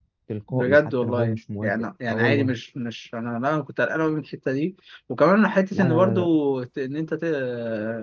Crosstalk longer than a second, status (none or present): present